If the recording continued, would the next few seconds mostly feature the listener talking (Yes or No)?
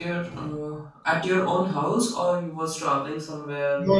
Yes